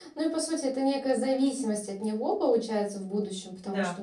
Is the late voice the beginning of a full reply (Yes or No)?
No